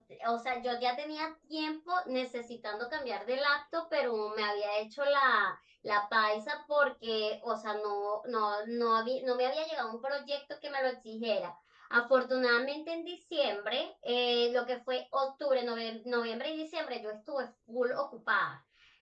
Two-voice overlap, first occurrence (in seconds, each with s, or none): none